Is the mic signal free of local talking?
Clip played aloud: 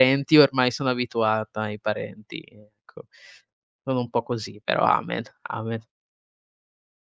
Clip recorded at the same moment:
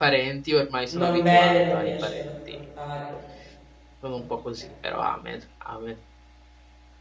No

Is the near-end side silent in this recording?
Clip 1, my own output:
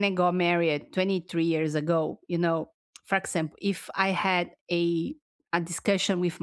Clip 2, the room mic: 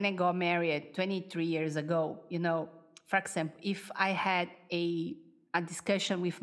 Yes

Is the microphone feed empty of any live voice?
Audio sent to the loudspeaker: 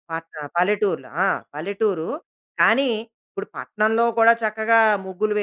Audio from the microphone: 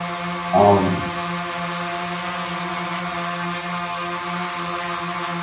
No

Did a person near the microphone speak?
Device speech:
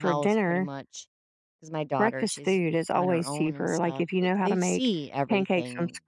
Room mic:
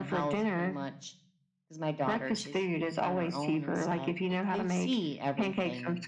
No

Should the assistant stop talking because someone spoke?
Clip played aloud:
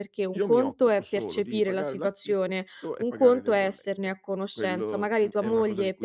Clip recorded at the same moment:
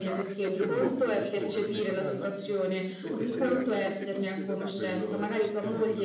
Yes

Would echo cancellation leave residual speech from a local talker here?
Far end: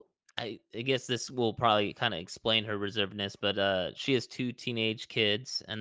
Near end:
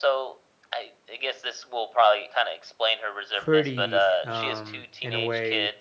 Yes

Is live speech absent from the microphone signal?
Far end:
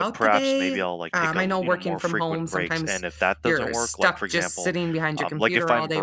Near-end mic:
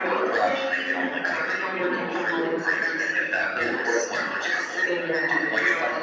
Yes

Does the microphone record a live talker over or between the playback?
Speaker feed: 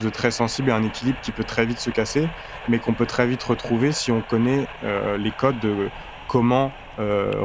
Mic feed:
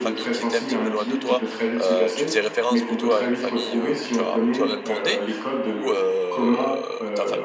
Yes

